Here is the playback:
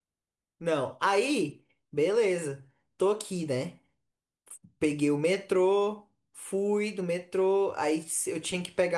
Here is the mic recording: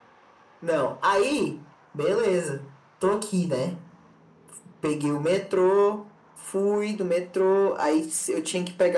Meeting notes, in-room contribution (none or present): none